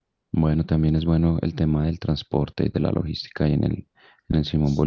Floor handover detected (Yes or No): Yes